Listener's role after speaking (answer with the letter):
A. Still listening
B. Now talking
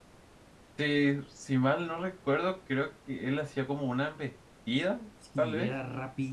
B